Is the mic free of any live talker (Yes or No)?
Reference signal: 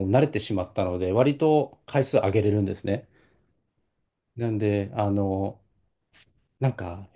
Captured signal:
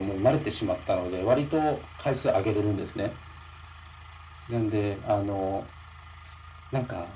Yes